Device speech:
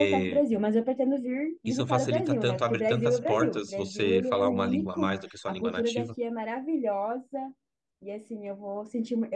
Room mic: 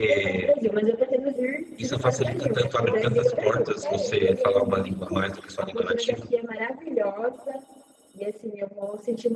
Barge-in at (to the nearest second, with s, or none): 3 s